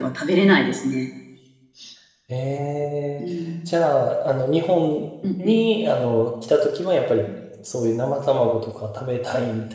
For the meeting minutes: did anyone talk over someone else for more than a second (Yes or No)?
No